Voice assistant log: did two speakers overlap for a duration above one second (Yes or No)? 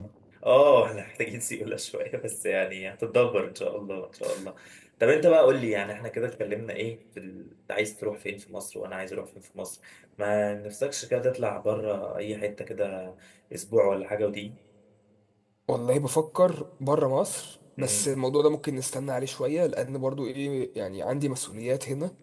No